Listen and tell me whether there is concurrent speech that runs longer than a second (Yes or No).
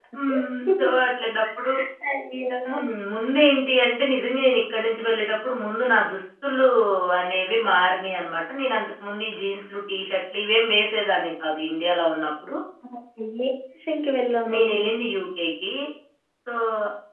No